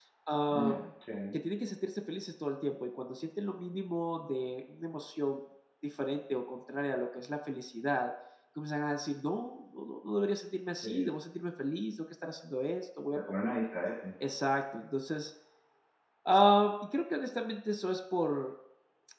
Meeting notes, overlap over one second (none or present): none